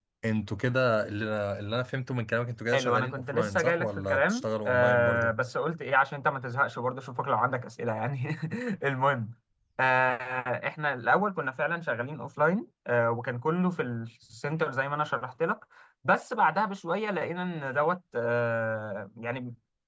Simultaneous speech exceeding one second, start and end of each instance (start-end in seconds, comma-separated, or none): 2.7-5.3